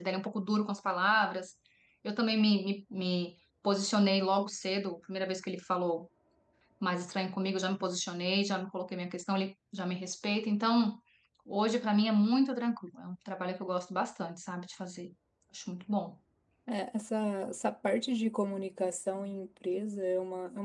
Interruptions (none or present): none